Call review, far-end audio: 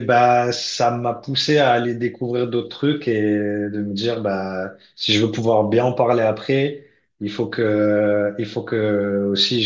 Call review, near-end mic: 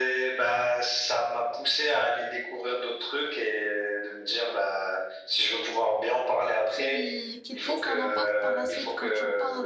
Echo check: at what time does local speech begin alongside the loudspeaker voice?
7 s

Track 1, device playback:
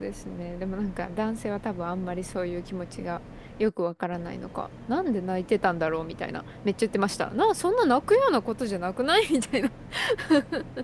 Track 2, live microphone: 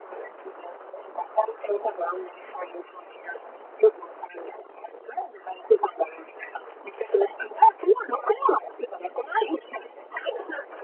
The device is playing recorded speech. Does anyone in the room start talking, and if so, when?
none

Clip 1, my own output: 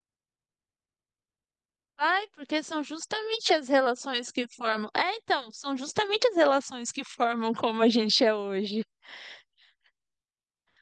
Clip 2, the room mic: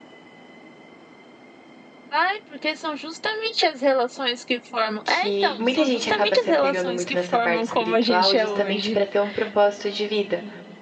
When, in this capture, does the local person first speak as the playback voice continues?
5 s

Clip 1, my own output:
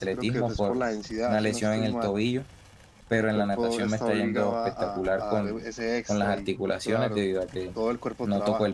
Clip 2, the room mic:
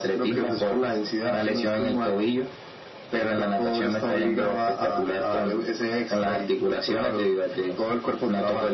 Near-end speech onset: none

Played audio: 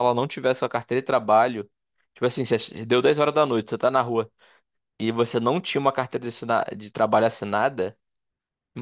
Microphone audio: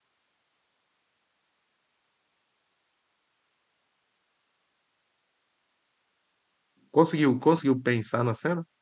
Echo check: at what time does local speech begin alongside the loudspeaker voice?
7 s

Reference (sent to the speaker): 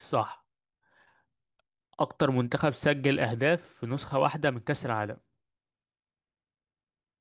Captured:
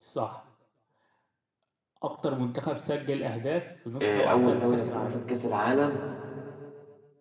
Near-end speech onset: 4 s

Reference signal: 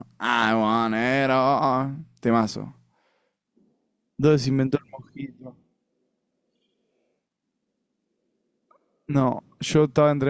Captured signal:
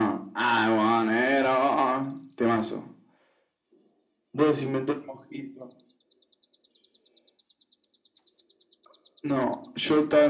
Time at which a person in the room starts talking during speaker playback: none

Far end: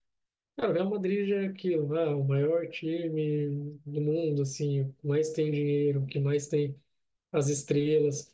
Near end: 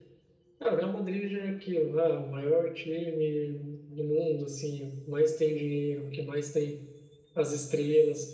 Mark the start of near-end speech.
none

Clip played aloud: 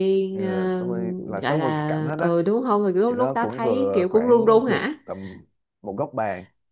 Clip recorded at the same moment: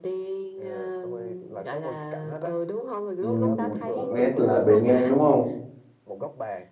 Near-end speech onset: 3 s

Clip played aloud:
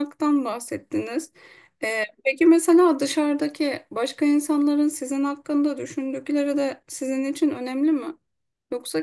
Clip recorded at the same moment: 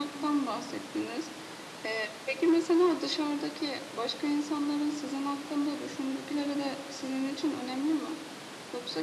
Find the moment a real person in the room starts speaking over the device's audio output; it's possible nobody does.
none

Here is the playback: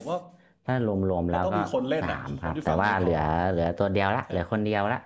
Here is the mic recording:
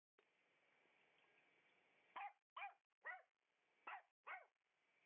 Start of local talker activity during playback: none

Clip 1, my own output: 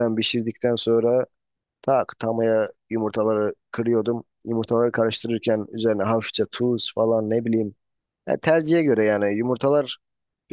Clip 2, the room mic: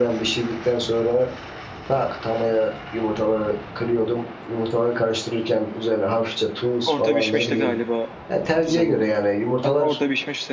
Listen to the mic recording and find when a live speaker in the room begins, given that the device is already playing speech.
7 s

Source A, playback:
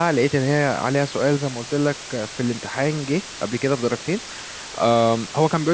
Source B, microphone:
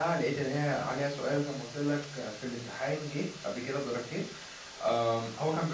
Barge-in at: none

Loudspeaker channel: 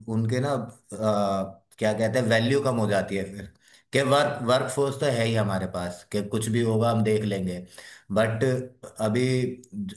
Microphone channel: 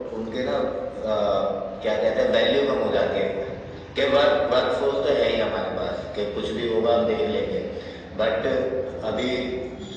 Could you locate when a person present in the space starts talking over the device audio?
none

